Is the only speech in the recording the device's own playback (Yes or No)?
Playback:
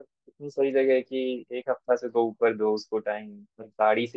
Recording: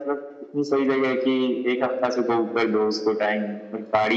Yes